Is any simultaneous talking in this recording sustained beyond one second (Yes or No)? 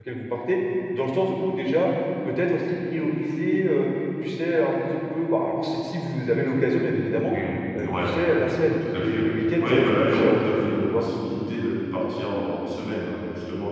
Yes